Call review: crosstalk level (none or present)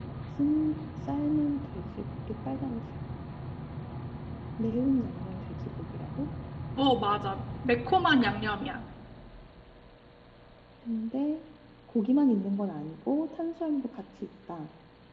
none